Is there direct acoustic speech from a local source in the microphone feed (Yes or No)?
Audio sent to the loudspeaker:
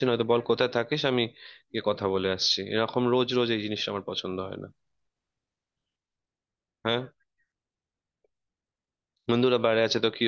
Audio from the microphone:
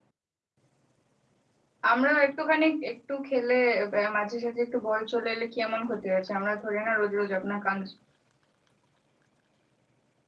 Yes